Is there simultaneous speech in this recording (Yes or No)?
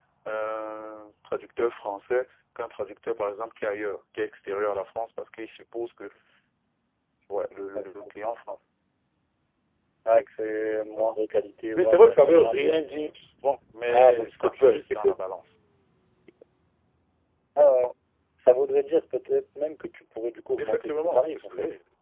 Yes